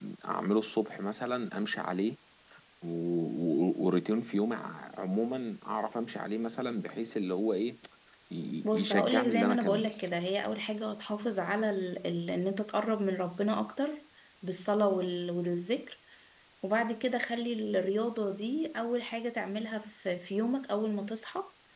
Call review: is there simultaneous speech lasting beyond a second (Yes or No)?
Yes